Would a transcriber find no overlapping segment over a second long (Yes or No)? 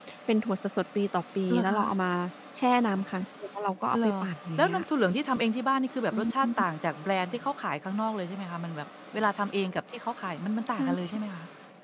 Yes